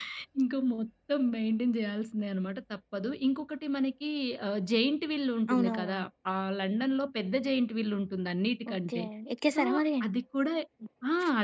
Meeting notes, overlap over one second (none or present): none